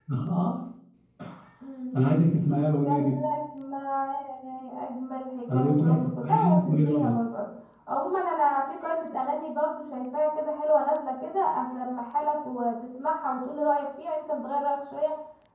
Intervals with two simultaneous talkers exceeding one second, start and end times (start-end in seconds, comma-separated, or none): 5.5-7.1